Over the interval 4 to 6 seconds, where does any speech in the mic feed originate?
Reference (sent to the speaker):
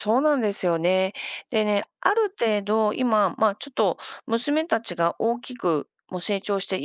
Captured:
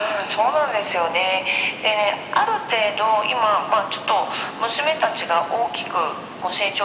echo only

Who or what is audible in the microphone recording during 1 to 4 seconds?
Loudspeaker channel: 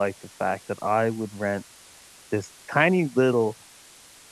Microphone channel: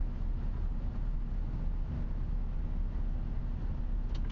neither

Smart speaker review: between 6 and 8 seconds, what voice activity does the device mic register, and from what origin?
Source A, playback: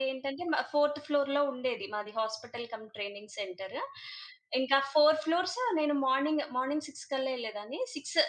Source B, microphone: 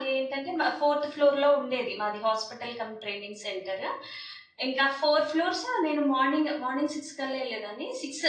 echo only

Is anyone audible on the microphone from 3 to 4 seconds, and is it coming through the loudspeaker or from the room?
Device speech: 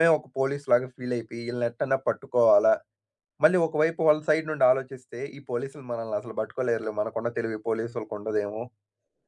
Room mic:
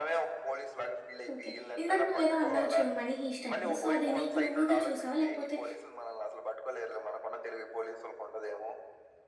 both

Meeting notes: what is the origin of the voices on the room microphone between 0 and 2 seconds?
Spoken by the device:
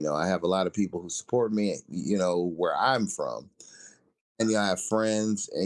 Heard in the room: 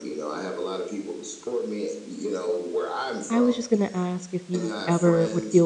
echo only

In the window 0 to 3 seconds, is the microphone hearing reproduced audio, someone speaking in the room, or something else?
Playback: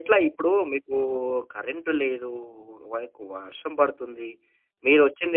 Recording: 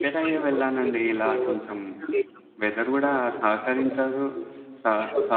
both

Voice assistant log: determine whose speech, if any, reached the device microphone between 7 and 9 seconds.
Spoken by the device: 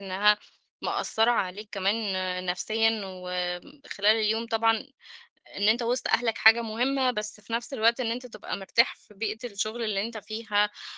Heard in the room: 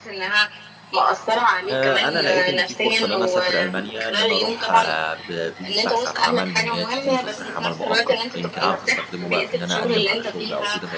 both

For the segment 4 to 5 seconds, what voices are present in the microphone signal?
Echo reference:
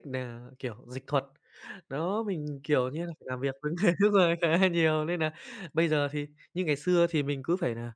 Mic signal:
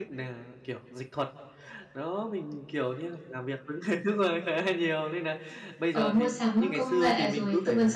echo only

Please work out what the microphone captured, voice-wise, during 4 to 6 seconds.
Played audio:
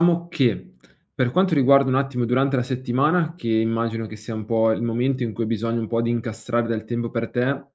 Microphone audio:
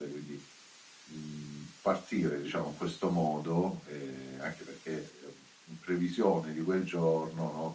user only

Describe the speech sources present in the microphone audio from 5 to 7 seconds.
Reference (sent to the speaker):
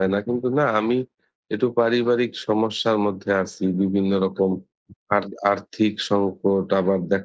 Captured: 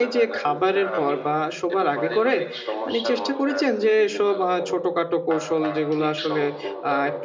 both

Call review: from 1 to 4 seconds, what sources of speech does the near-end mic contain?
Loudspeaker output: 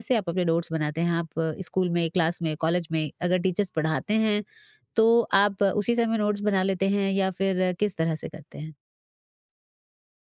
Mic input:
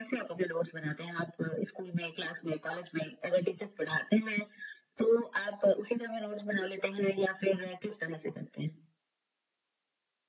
echo only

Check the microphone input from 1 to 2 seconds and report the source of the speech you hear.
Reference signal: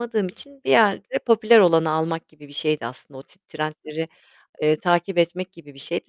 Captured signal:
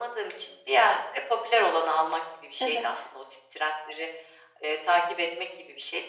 echo only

